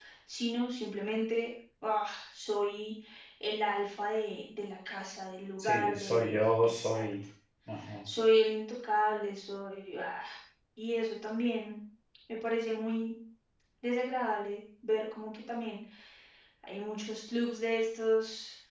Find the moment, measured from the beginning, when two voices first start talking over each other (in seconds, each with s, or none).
5.6 s